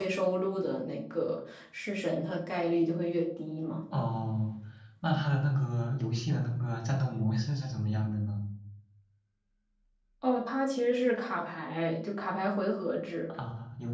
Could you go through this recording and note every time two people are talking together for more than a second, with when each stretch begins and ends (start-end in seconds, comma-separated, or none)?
none